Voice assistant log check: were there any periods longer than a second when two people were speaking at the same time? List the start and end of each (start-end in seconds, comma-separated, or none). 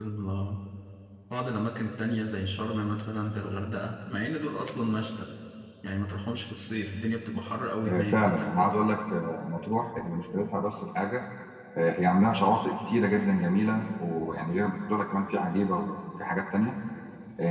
none